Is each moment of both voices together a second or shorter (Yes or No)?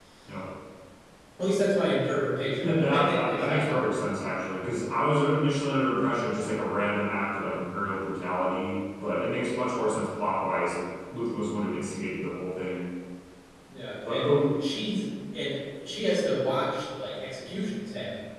No